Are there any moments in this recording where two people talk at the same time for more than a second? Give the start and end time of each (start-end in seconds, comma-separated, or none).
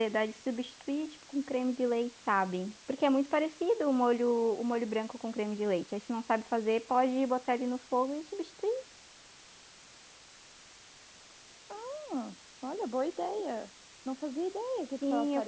none